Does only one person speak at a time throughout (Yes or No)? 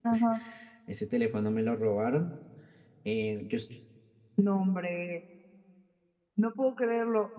Yes